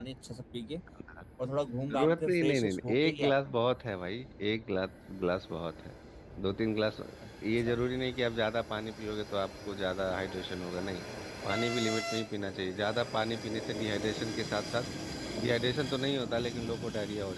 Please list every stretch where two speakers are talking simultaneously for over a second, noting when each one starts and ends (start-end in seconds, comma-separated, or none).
1.9-3.5